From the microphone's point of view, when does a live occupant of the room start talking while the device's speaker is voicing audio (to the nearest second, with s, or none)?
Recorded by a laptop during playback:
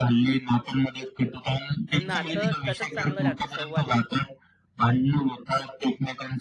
2 s